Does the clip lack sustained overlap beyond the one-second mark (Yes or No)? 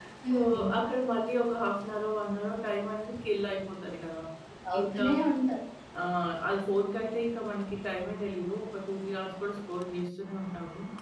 Yes